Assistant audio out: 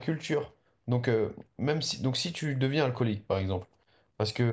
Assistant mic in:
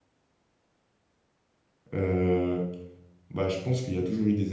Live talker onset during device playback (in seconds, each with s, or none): 1.9 s